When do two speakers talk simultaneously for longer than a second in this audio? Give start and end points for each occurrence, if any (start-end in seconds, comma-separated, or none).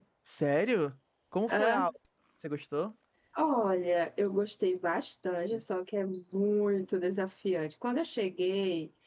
none